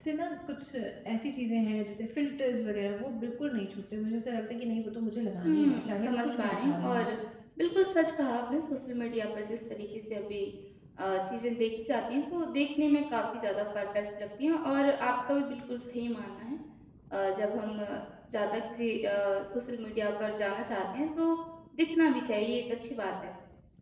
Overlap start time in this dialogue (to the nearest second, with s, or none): 5 s